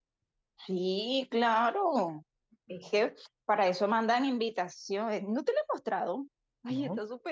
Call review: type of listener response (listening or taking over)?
listening